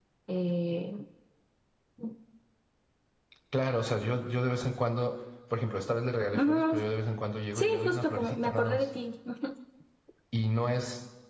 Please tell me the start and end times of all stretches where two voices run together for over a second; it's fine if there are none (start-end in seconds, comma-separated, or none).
7.6-8.9